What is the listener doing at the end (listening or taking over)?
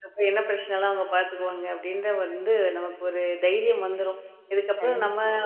listening